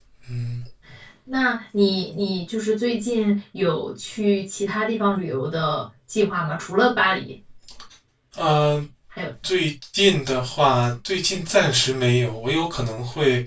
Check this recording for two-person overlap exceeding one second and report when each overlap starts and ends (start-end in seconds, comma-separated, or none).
none